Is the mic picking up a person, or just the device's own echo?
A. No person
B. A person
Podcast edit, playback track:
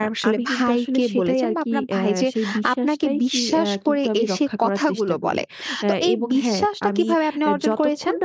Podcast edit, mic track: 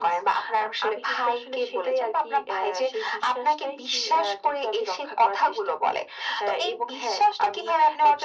A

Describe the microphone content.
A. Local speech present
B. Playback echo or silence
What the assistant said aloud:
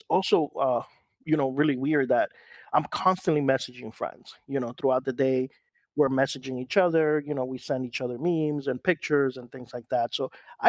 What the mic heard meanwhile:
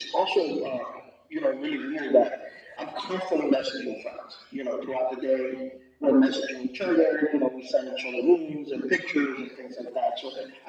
B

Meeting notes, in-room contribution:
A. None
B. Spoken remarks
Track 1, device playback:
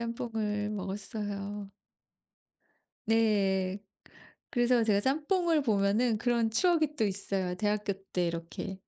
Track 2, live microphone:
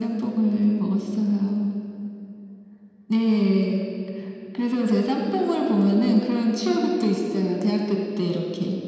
A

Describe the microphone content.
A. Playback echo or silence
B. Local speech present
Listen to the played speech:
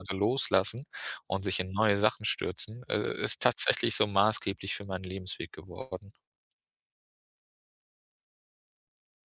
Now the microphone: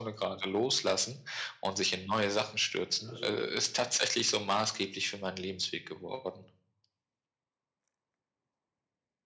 B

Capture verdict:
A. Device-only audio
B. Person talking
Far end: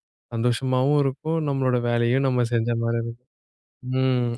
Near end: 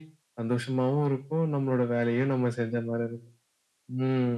A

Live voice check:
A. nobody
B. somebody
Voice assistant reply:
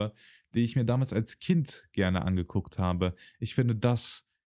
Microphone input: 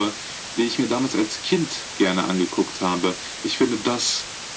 A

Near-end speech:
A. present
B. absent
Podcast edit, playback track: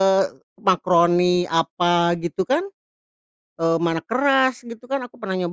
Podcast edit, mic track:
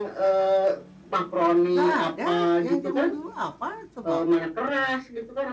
A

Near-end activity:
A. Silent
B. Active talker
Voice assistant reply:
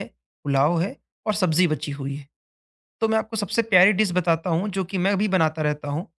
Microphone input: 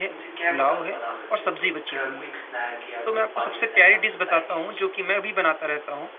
B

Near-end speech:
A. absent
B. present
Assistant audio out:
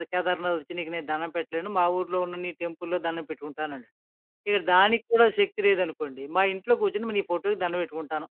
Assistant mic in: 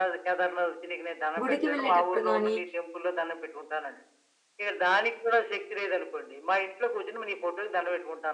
B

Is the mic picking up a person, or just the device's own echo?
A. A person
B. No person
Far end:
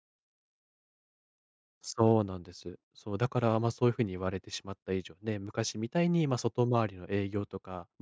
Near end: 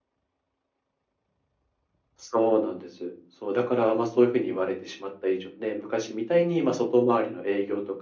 B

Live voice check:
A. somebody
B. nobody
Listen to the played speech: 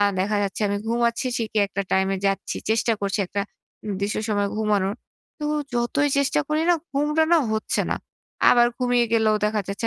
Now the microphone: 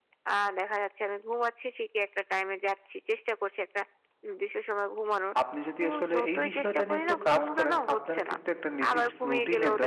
A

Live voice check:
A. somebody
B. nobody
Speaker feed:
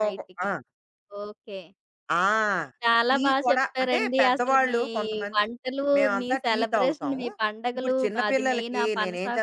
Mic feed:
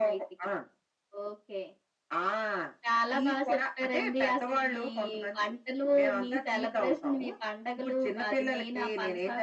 B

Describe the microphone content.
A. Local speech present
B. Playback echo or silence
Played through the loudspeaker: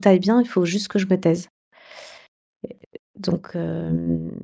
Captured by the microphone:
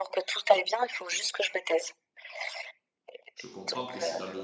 A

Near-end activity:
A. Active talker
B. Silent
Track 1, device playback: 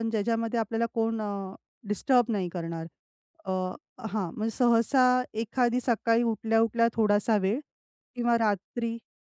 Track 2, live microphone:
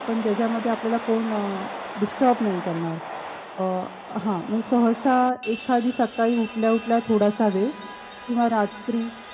B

